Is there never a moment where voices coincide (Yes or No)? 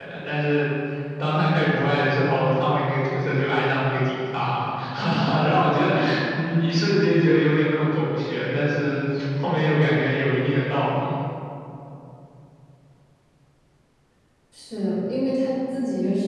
Yes